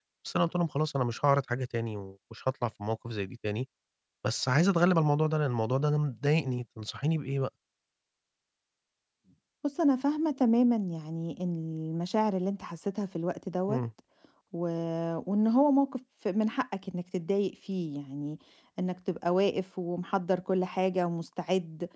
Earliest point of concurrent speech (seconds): none

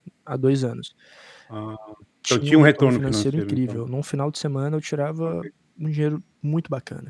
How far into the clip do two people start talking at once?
2.3 s

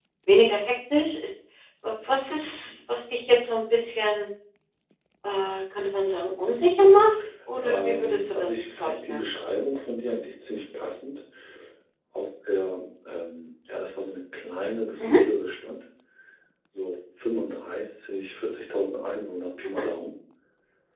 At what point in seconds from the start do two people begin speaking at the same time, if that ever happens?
7.6 s

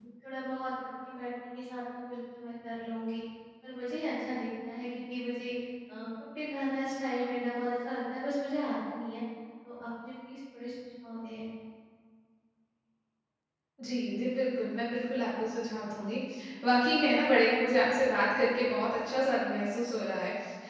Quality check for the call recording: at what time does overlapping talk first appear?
none

